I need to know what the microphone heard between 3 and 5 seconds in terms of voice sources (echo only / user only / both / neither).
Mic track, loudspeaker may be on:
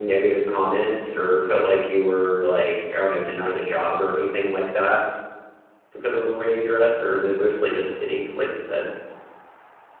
user only